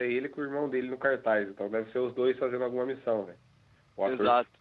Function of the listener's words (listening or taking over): listening